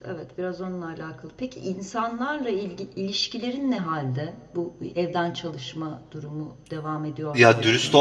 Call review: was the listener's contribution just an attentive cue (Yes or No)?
No